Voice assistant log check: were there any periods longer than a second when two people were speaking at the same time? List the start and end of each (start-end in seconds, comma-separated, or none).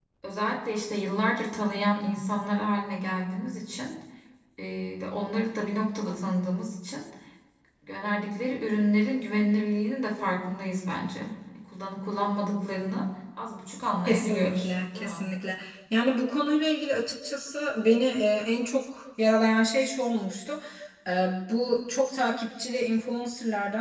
14.1-15.3